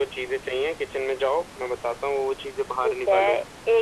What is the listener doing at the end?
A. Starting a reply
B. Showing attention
A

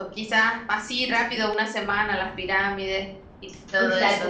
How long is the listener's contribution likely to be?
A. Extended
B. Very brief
A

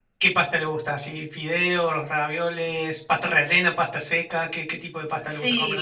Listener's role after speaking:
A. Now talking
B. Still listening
A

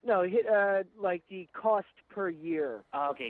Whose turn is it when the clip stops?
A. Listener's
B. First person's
A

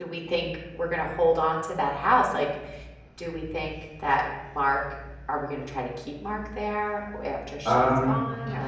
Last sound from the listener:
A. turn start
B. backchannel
A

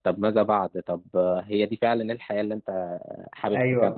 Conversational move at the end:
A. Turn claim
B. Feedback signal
A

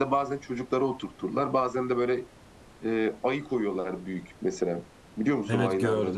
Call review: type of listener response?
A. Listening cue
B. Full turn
B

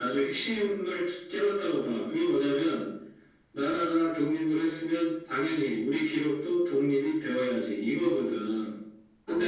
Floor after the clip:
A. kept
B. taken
A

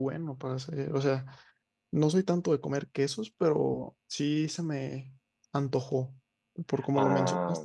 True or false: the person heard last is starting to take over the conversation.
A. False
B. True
B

